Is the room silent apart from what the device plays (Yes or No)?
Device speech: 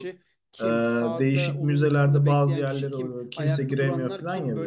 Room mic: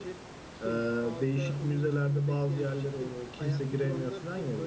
Yes